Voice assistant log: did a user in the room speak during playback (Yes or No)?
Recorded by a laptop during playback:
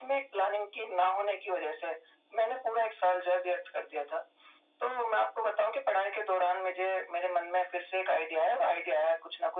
No